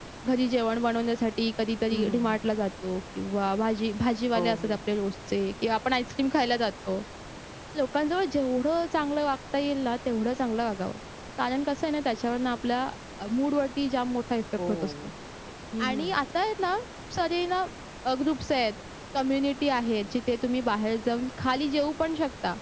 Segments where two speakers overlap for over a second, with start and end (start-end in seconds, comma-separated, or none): none